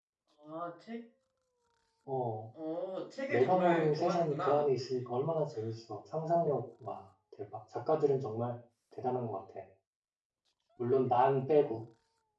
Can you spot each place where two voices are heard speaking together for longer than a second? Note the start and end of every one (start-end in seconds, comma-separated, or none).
3.3-4.7